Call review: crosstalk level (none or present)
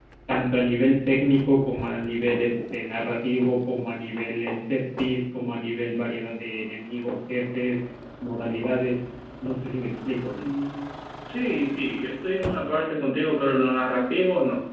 none